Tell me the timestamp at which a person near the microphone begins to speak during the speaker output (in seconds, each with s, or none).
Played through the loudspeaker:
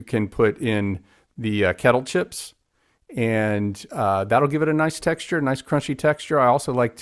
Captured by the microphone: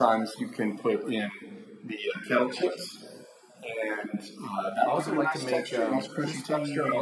4.8 s